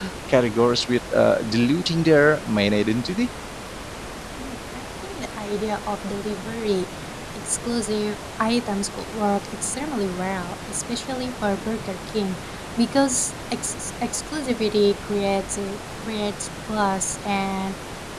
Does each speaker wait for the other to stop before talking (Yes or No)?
Yes